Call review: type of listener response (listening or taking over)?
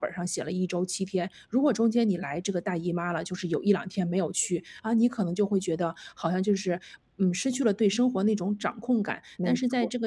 listening